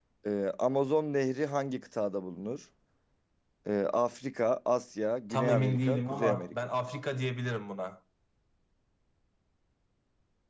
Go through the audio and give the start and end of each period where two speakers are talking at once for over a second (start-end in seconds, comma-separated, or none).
5.3-6.5